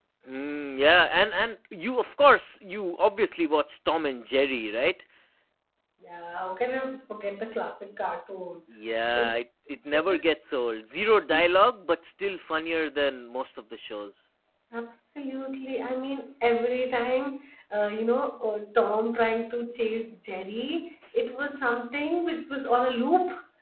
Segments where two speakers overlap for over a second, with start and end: none

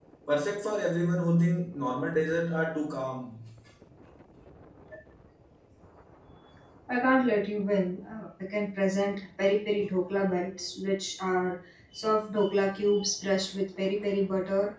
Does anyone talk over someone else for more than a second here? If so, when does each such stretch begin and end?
none

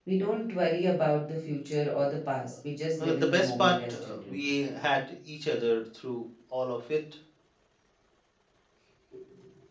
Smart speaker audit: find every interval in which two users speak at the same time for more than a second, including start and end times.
3.0-4.4

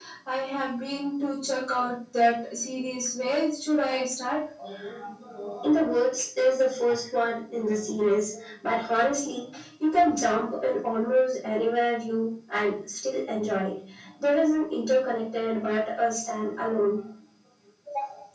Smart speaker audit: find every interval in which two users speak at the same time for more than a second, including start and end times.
none

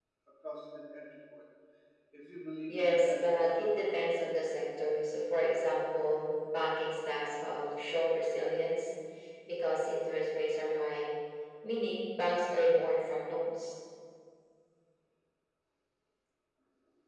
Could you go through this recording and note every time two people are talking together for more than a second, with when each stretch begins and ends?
2.7-4.3

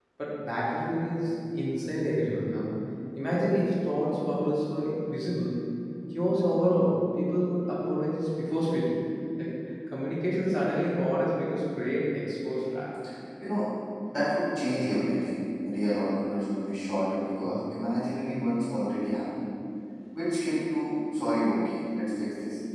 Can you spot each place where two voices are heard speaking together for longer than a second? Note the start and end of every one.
none

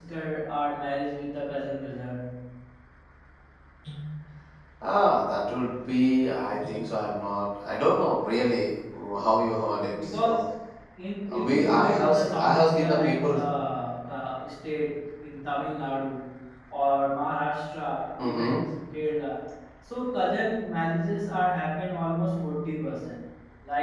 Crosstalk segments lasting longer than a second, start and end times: 11.4-13.3

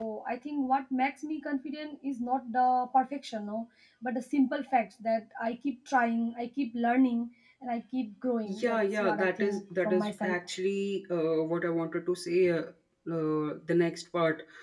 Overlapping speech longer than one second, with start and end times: 8.4-10.6

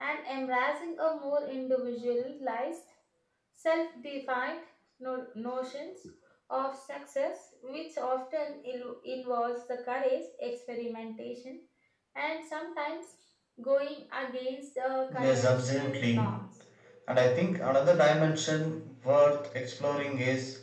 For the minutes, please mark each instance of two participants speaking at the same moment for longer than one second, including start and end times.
15.1-16.4

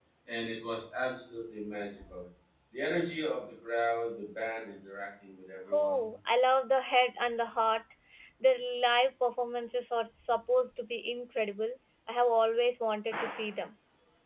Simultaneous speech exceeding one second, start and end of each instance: none

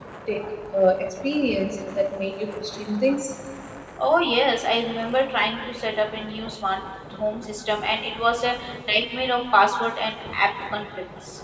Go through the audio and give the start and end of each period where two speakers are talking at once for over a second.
none

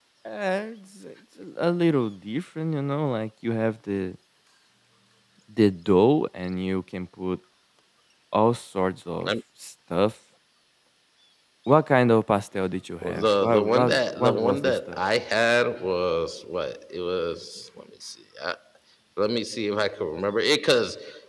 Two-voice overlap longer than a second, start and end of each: 13.0-15.0

